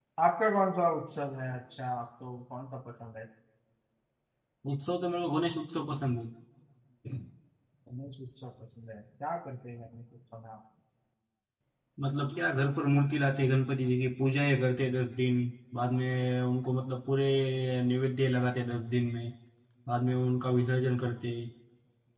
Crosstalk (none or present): none